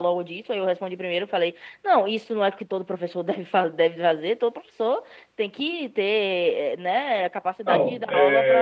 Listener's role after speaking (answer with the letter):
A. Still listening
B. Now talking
B